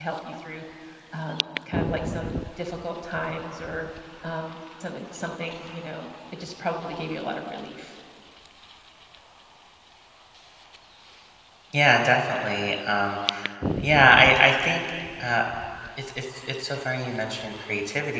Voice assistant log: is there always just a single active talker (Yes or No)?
Yes